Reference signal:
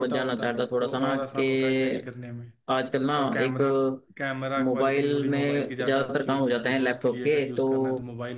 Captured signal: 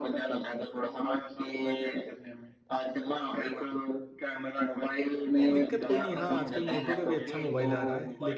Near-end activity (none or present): present